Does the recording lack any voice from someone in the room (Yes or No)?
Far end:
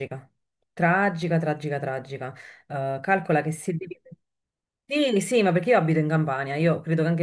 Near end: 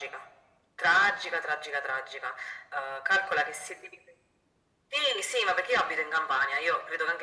Yes